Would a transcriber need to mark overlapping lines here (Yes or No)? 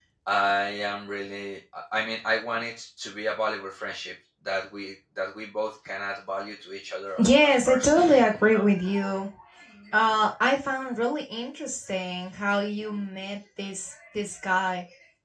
Yes